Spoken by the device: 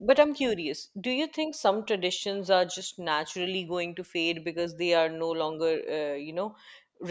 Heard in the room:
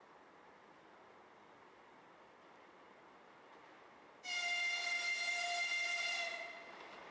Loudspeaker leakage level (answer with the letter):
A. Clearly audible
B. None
B